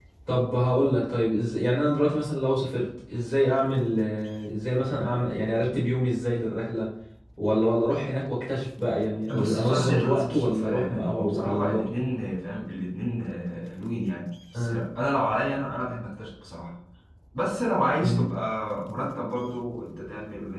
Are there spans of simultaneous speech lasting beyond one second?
Yes, from 9.2 s

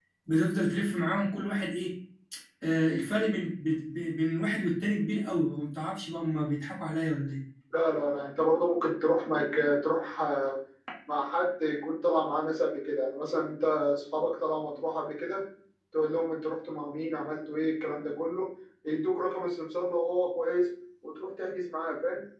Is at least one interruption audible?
No

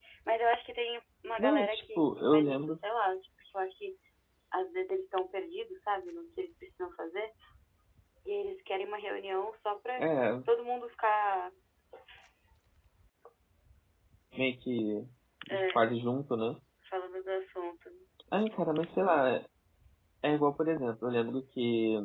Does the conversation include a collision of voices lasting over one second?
Yes, from 1.4 s

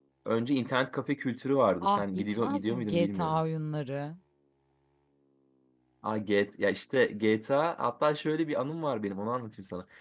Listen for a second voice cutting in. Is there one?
Yes, from 1.8 s

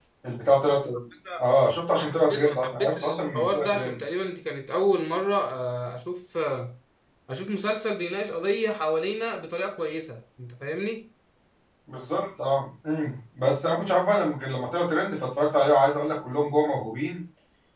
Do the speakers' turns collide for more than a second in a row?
Yes, from 2.0 s

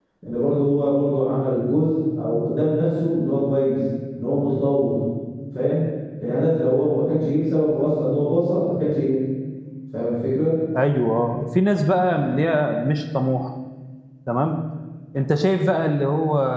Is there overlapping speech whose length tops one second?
No

